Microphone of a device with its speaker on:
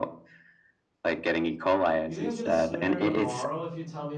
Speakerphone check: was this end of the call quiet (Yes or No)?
No